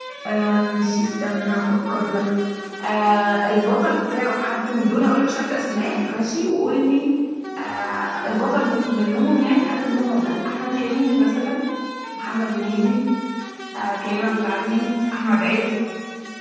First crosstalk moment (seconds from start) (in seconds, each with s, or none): none